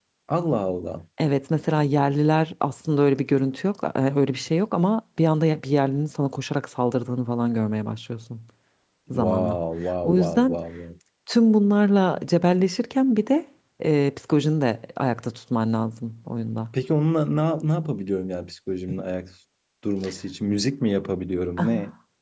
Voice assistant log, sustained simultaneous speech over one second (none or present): none